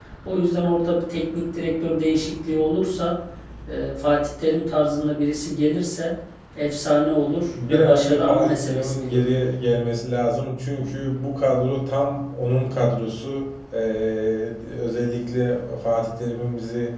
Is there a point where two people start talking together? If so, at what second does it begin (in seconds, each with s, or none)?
7.7 s